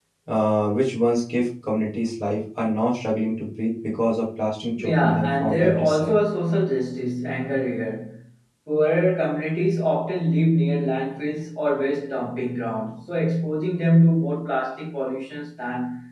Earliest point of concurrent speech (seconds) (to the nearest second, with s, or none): 5 s